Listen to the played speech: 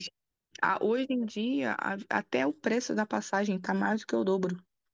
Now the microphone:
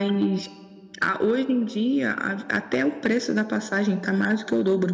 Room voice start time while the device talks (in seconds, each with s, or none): none